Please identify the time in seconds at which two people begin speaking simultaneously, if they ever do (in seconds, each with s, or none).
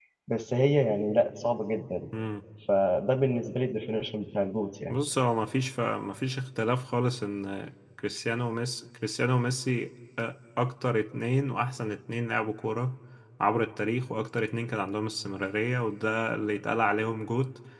none